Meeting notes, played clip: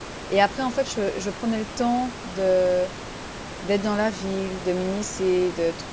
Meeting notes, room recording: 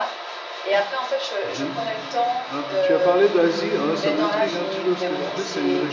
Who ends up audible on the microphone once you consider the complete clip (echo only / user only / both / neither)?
both